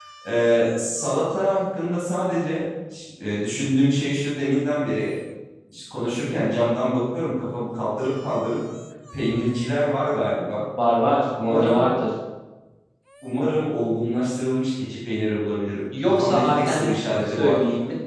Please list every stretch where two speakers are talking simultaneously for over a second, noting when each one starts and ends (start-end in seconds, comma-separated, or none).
16.1-17.6